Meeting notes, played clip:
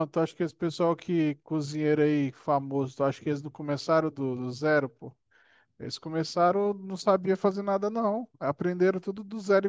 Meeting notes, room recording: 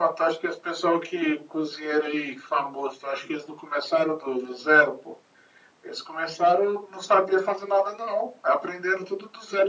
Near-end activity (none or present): none